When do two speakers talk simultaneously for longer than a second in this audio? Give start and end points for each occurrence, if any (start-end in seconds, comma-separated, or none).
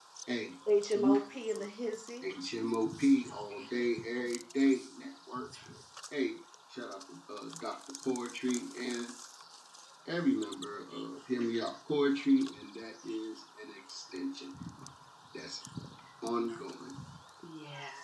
none